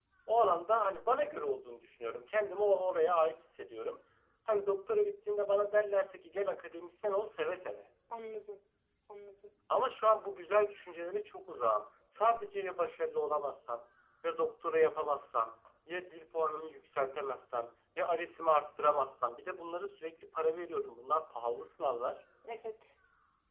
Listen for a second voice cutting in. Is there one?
No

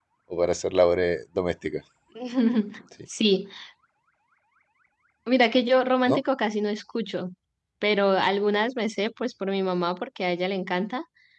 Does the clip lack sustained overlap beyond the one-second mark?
Yes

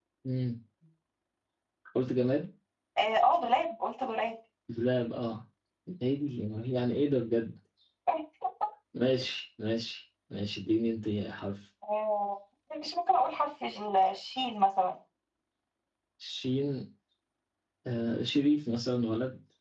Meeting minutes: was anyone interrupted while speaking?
No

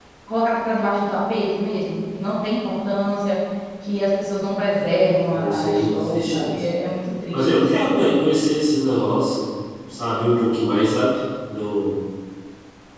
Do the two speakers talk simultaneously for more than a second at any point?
Yes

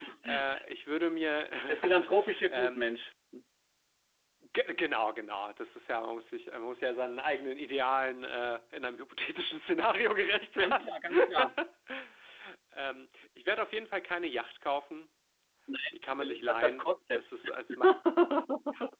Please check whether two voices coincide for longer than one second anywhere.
Yes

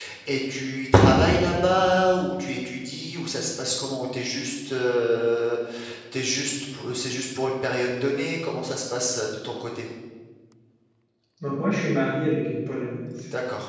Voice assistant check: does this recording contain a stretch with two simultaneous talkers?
No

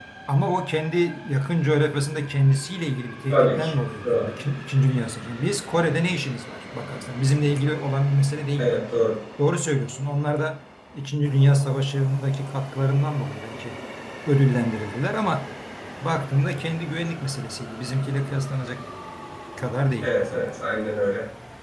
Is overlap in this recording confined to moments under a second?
Yes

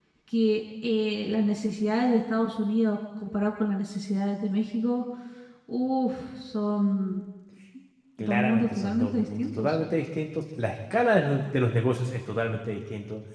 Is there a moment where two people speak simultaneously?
Yes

